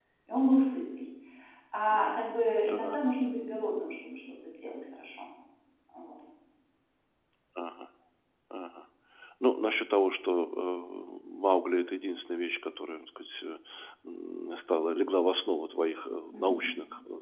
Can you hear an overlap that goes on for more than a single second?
No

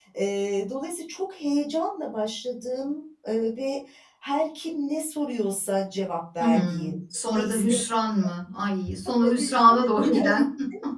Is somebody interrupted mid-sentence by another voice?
Yes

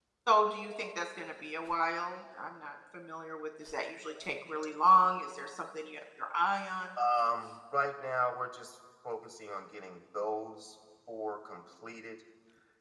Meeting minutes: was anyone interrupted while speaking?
No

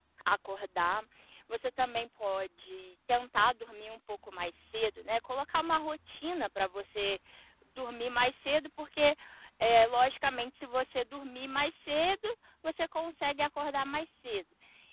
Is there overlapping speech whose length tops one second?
No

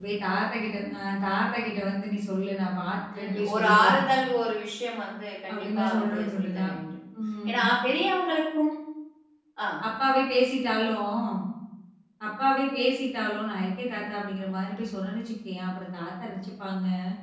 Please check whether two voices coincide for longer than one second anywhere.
Yes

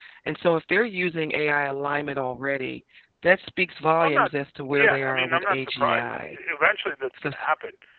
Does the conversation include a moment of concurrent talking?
Yes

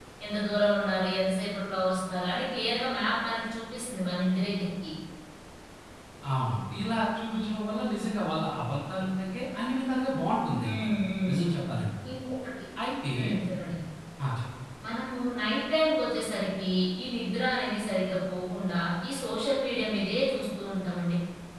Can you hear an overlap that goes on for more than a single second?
No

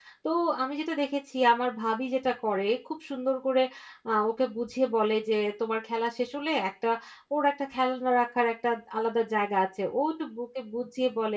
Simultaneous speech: No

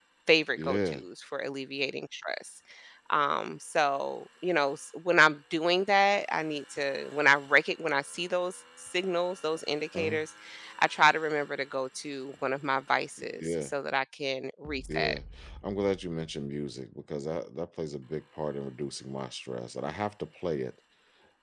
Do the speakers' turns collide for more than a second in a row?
No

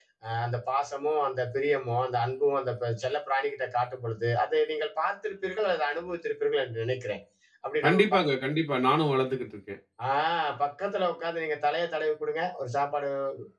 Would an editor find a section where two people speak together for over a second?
No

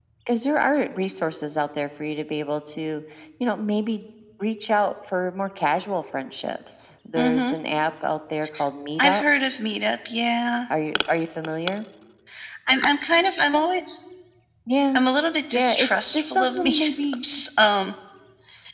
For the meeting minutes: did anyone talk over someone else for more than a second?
Yes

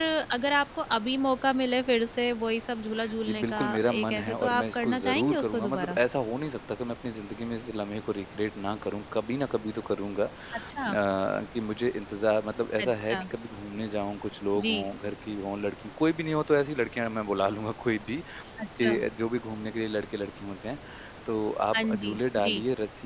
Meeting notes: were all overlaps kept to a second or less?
No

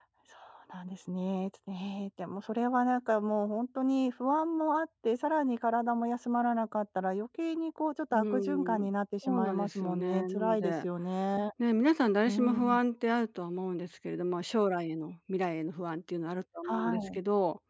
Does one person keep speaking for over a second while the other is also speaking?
Yes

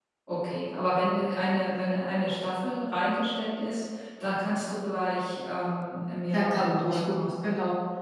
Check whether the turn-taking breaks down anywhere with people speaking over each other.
Yes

